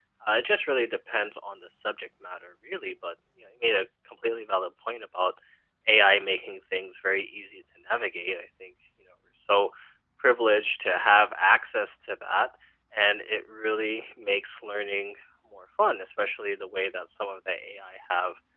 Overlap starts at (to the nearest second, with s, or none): none